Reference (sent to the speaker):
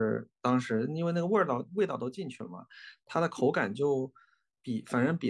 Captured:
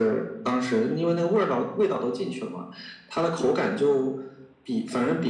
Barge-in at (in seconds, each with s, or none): none